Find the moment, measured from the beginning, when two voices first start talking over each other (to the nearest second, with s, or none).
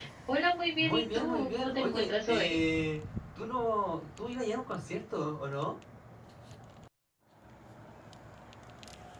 1 s